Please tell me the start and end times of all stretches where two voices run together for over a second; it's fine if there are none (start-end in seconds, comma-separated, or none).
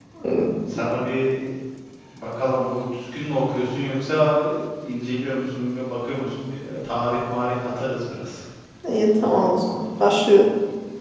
none